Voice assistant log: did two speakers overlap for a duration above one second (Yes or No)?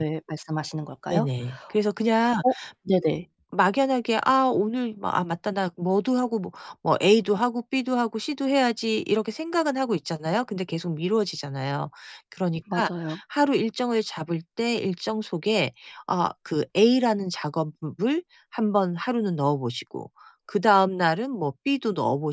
No